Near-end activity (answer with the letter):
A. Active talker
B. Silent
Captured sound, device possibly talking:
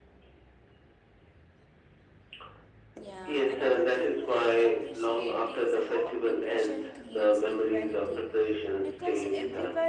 A